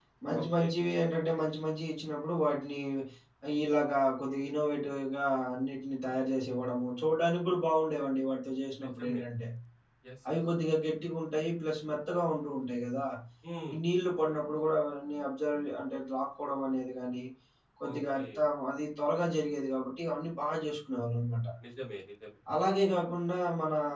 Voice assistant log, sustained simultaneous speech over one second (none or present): none